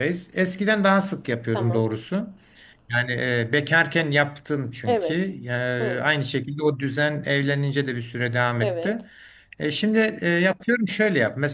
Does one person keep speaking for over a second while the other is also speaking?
No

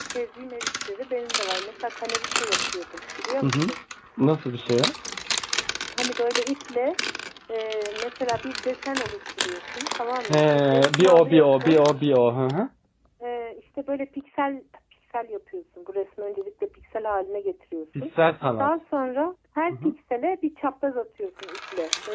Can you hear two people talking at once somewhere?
Yes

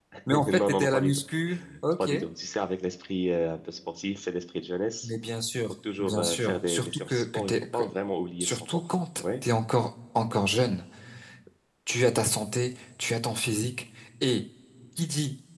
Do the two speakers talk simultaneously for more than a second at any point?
Yes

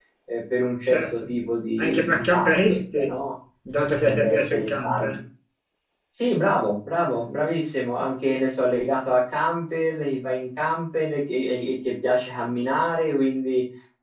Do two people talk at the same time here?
Yes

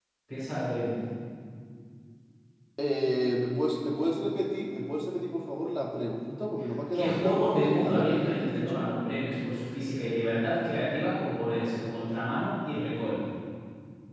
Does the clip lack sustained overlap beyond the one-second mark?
No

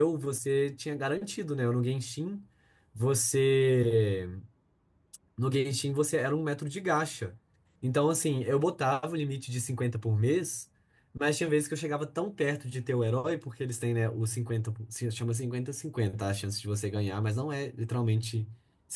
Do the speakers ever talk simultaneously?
No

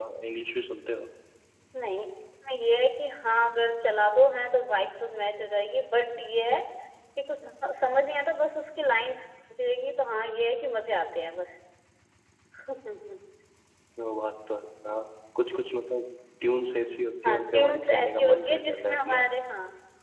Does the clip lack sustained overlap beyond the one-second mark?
No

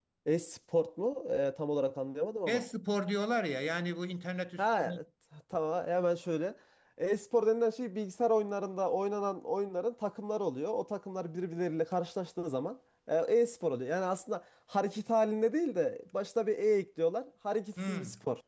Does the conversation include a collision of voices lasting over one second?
No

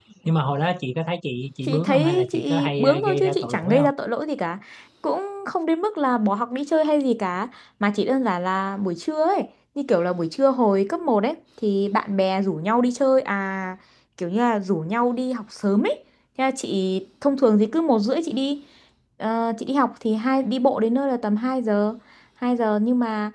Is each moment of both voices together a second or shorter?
No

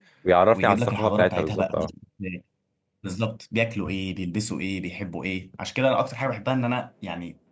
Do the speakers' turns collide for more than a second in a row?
Yes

